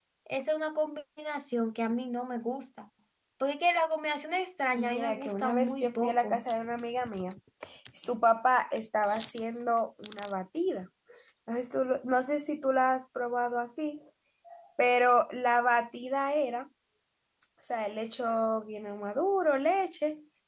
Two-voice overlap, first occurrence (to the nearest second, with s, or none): 5 s